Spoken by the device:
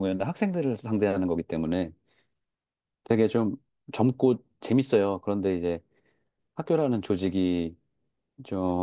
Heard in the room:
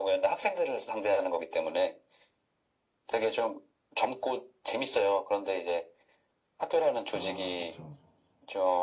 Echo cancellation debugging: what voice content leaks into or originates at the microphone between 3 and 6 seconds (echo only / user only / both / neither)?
echo only